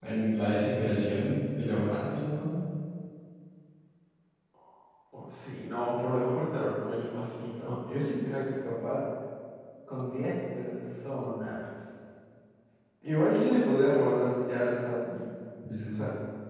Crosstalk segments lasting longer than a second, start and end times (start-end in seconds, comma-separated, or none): none